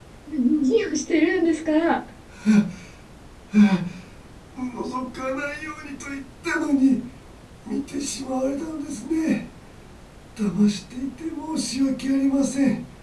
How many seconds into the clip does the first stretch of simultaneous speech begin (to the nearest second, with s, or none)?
none